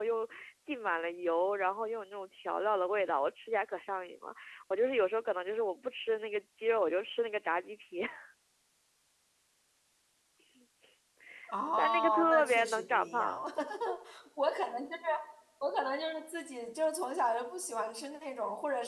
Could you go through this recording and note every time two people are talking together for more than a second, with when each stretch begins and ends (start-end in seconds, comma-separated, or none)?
11.8-13.4